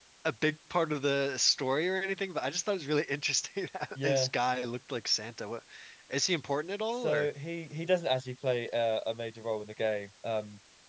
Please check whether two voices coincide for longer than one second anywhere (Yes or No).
No